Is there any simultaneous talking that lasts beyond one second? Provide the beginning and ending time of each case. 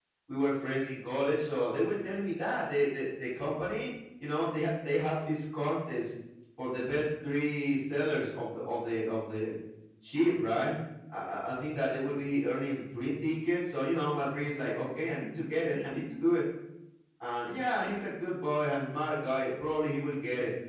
none

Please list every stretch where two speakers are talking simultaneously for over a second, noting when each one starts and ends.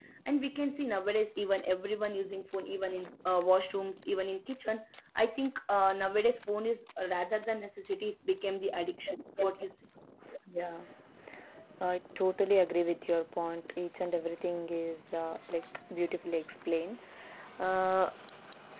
none

